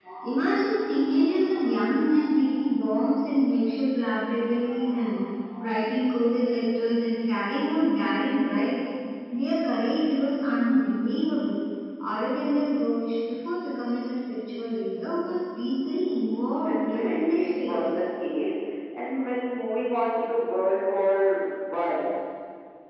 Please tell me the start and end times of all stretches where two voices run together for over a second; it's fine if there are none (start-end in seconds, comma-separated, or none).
16.6-17.8